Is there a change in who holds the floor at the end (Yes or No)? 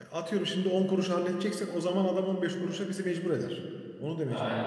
Yes